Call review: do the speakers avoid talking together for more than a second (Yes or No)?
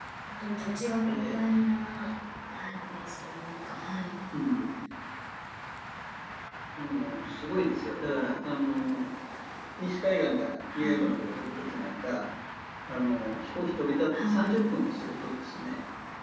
Yes